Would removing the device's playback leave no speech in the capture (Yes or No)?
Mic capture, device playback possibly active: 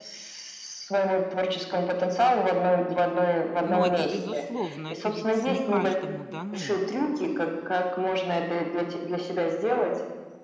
No